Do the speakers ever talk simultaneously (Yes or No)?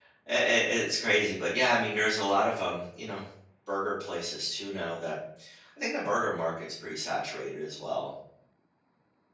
No